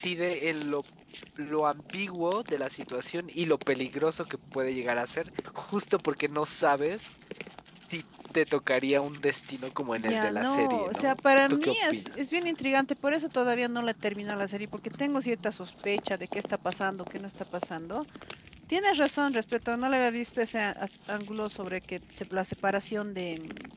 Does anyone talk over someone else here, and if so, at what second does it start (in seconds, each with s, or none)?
10.0 s